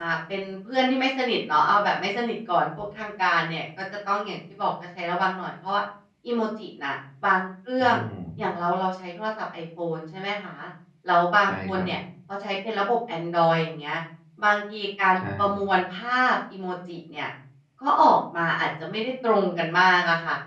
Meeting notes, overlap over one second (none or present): none